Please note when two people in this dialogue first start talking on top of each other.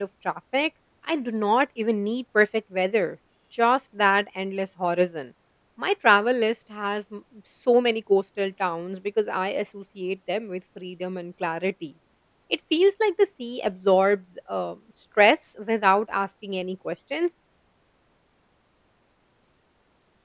none

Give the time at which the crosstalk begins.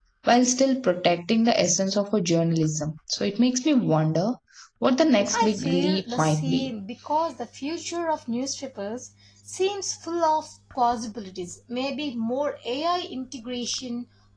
5.3 s

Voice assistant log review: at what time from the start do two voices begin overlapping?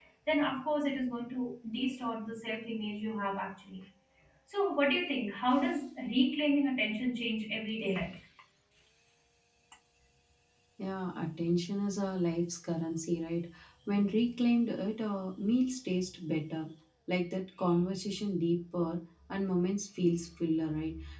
none

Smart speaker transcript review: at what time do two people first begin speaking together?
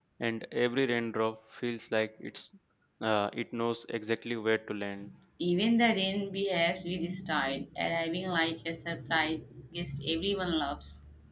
none

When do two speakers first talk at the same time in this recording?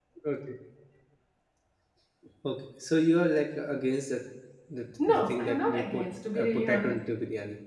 5.1 s

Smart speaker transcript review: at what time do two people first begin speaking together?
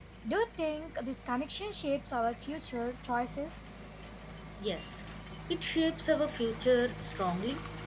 none

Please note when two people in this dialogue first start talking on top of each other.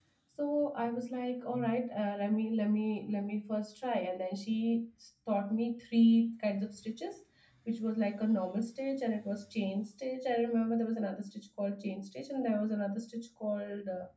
none

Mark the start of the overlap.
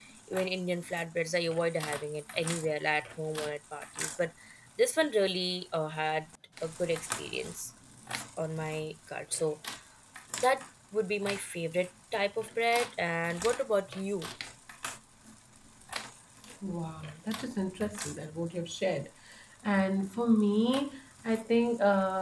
none

